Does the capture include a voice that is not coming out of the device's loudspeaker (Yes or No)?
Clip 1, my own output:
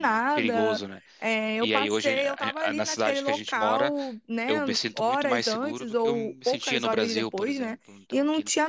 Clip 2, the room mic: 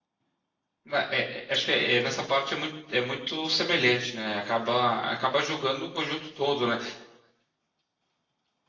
Yes